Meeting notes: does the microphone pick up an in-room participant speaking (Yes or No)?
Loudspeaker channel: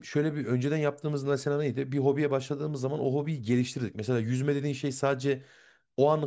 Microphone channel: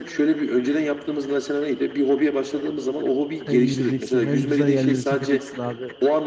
Yes